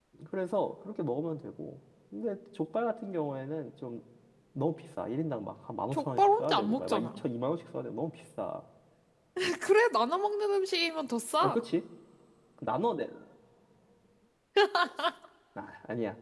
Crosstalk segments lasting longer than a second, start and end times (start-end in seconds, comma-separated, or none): 5.9-7.2